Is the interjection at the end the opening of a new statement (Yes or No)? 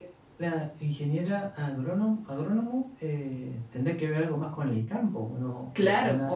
Yes